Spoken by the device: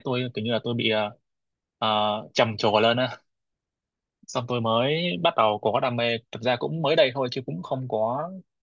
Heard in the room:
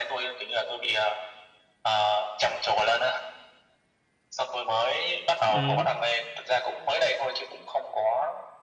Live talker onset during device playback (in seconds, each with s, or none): 5.5 s